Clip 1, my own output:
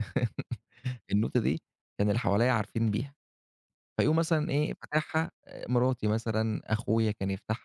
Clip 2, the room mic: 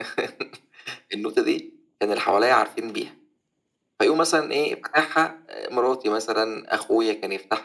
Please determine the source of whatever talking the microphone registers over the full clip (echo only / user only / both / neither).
echo only